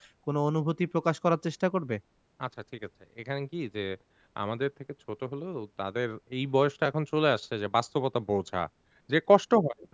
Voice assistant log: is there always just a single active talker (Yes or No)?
Yes